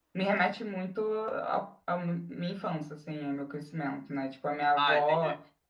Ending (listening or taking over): listening